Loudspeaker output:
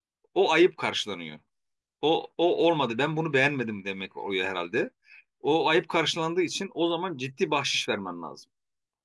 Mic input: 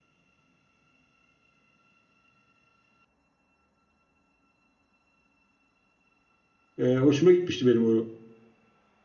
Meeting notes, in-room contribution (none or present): present